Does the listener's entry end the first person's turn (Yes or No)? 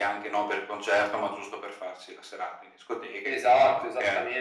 Yes